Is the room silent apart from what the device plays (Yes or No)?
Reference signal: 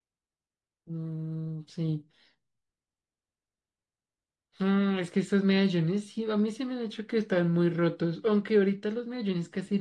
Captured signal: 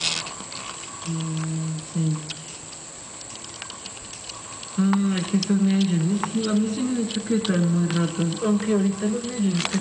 Yes